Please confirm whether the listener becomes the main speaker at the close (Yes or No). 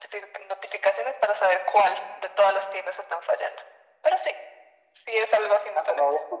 Yes